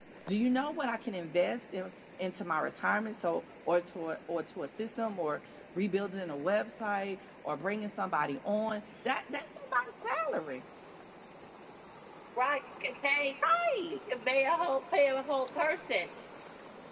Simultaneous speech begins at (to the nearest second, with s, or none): none